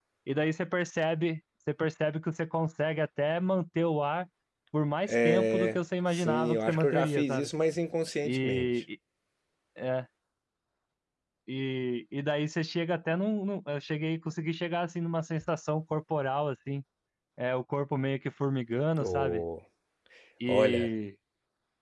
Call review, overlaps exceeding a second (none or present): present